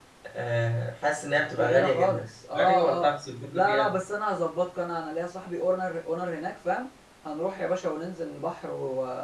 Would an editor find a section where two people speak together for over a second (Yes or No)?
Yes